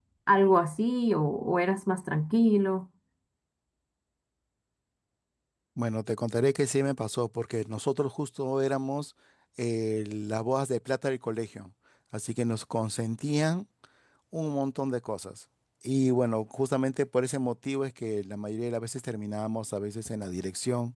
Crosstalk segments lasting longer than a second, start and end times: none

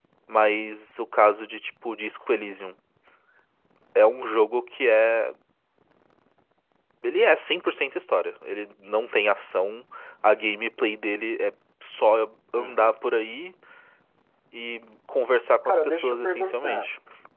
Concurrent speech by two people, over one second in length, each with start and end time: 15.7-16.9

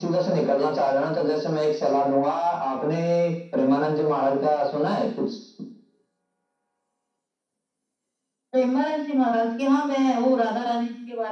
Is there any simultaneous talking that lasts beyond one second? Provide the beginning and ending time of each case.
none

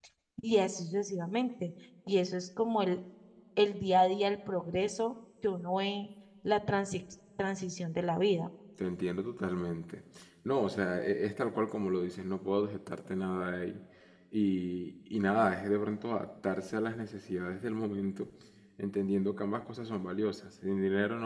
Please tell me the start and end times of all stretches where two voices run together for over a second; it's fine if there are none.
none

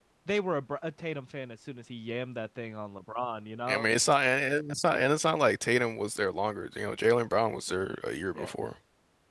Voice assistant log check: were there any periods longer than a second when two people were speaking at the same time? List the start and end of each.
none

